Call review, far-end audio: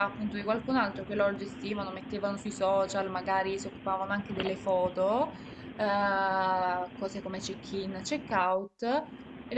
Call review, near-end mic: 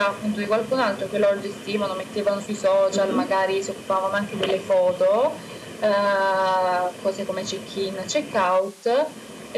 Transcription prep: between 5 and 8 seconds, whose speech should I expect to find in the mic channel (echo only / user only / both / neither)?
echo only